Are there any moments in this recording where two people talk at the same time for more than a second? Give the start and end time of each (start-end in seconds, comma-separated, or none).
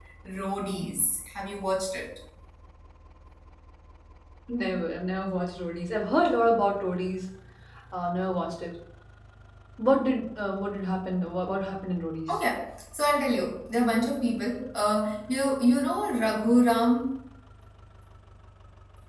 none